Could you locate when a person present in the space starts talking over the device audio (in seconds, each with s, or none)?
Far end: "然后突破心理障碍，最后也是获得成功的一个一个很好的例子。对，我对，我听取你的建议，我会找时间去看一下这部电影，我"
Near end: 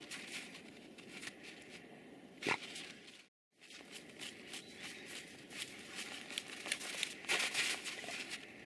none